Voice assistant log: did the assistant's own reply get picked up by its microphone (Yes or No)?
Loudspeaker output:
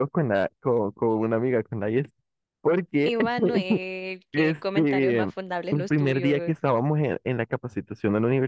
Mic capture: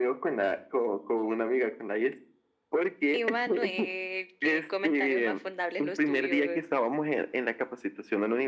Yes